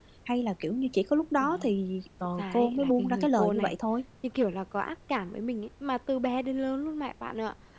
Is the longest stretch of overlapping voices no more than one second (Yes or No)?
No